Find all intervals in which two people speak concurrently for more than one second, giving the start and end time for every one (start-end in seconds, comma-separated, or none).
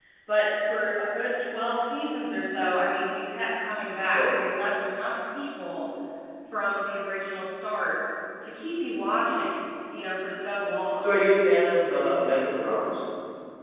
none